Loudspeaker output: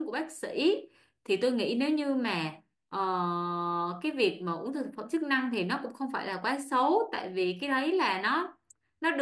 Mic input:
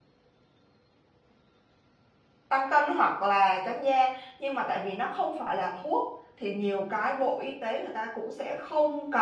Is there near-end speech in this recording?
Yes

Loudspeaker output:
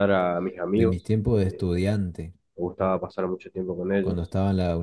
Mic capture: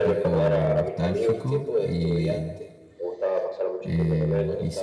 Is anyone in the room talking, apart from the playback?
Yes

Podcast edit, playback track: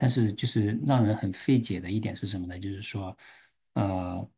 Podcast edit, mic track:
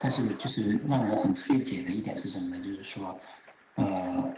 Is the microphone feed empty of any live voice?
Yes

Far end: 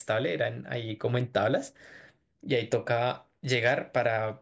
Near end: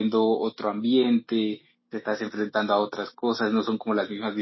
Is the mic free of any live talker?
No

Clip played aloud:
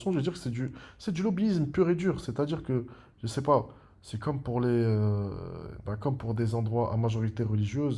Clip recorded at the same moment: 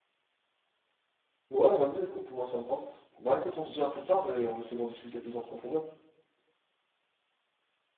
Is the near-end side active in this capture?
Yes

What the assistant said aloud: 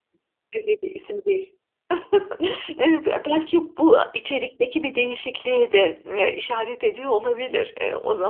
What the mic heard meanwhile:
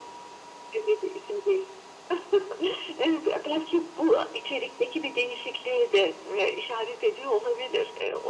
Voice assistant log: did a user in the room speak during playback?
No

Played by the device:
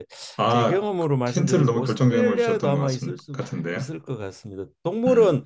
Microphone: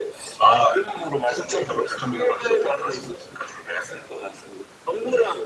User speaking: No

